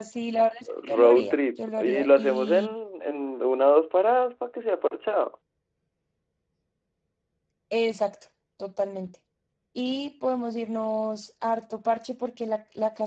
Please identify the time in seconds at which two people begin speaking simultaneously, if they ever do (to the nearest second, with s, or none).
1 s